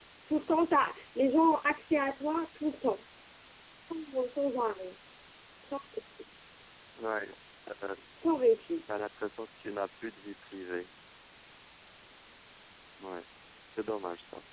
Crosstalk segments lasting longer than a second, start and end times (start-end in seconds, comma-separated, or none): none